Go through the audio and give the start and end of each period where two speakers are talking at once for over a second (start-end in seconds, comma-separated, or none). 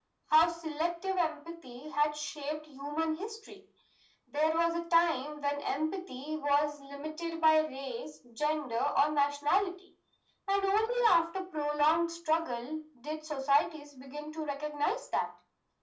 none